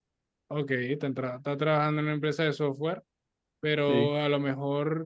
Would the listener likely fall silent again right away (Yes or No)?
Yes